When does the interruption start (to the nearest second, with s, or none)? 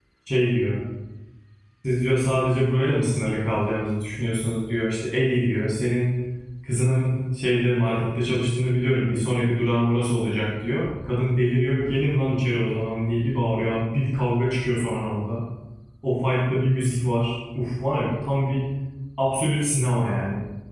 none